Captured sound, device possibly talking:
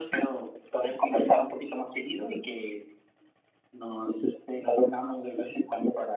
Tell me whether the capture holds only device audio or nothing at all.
Yes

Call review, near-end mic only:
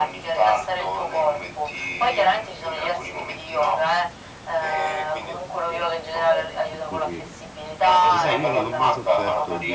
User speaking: Yes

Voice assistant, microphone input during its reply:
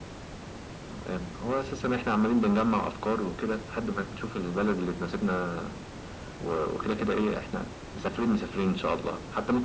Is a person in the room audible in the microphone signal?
No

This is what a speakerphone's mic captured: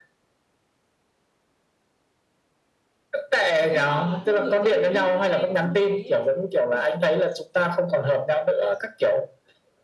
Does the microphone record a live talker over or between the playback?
Yes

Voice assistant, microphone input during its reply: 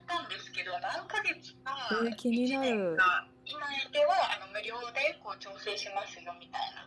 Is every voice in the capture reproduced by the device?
No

